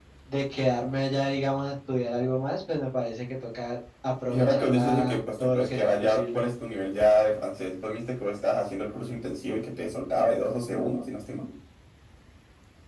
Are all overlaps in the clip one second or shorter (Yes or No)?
No